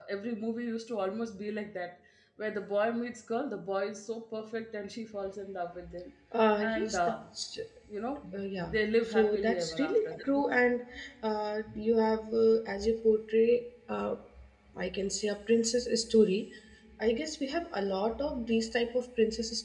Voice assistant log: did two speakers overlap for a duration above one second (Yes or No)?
Yes